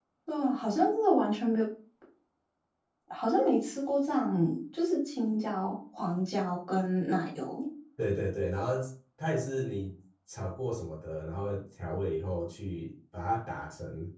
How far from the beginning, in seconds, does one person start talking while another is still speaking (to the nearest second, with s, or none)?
none